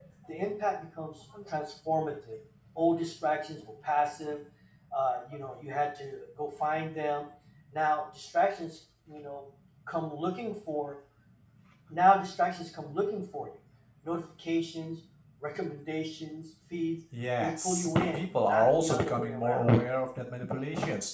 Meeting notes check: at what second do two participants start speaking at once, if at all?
17.4 s

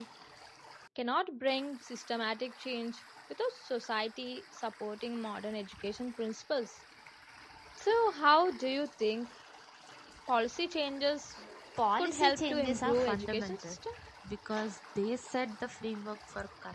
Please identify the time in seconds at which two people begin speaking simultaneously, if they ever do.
12.0 s

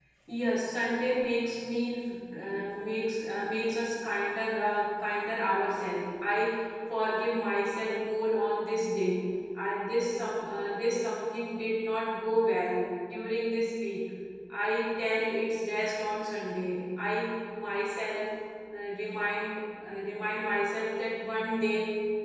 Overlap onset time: none

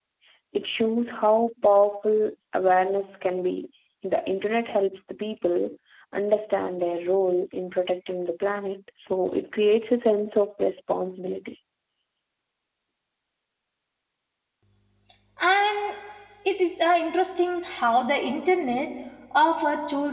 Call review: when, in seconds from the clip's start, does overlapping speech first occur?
none

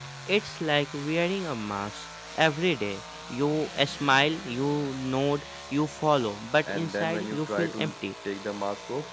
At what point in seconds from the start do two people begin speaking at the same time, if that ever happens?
6.7 s

